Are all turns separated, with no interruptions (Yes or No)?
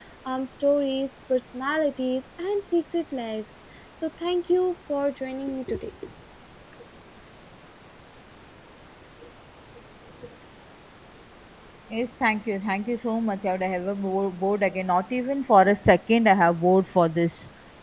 Yes